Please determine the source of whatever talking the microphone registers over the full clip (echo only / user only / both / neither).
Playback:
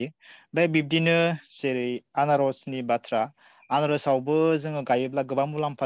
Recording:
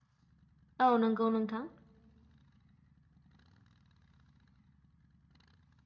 user only